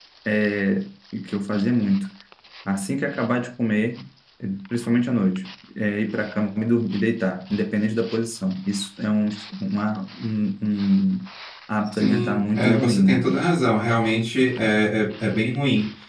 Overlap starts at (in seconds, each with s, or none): 12.0 s